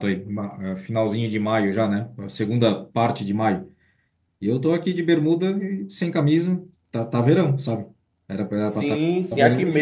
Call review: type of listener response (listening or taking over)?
taking over